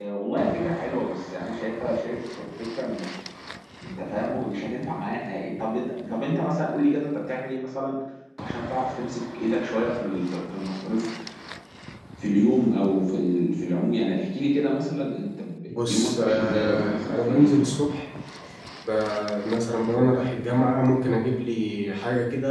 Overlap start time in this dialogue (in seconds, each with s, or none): 15.7 s